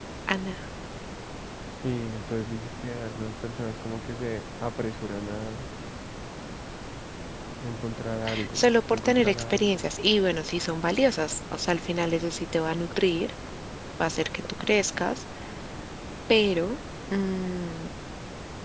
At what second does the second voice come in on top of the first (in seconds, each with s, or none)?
8.5 s